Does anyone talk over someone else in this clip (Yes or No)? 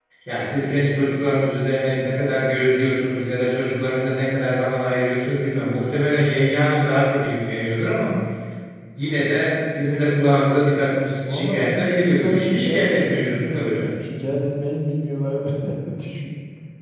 Yes